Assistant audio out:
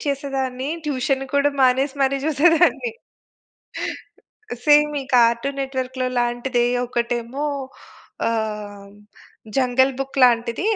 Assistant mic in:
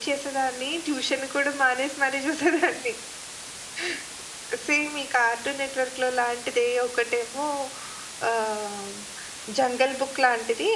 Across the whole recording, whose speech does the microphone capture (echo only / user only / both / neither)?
echo only